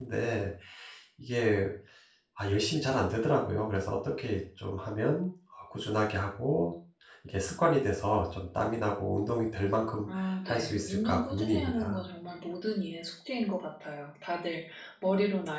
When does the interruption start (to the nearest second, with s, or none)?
10 s